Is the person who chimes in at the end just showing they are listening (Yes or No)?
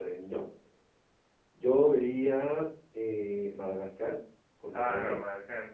No